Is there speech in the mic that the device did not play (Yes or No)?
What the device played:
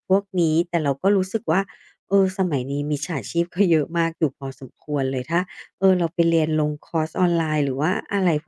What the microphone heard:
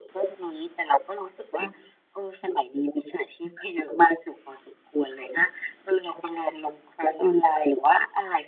No